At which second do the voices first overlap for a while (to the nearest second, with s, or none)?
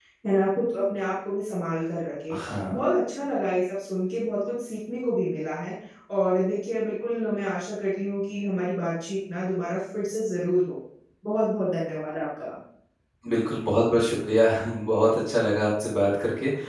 none